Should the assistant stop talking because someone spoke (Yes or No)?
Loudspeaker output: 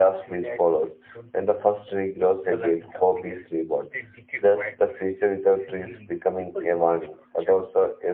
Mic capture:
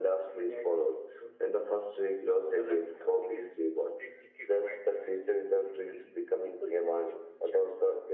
No